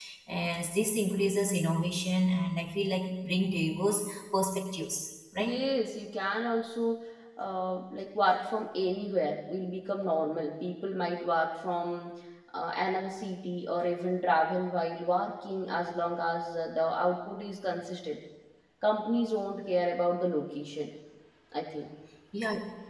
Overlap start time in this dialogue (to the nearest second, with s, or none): none